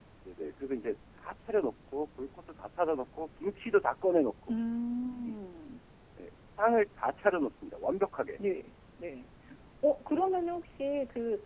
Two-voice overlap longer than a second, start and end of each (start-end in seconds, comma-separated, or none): none